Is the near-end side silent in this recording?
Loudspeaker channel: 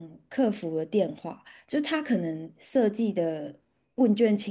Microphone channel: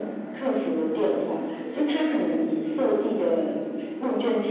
No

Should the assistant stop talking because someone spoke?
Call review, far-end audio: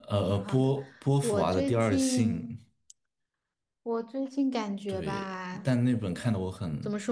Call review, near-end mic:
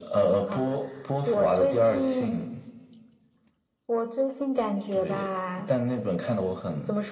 No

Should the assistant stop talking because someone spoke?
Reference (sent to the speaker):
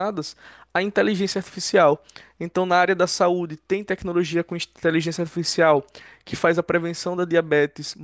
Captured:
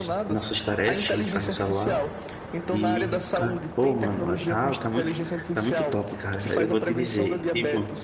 Yes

